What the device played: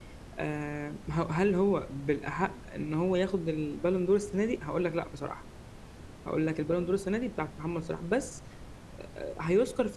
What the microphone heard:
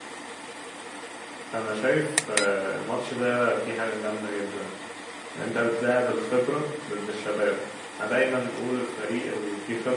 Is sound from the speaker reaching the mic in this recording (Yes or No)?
No